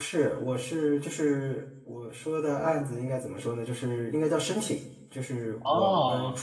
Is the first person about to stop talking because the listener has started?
No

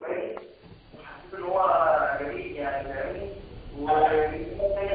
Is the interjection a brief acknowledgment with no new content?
Yes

